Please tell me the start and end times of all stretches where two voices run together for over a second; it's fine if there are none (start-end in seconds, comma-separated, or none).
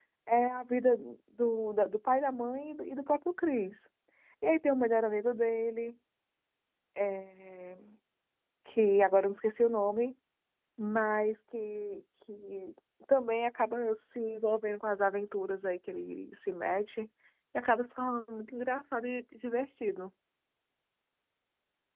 none